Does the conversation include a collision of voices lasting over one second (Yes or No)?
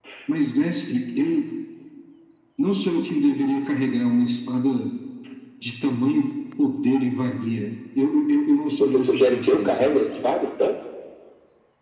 Yes